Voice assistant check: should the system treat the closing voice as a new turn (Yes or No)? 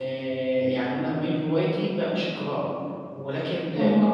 No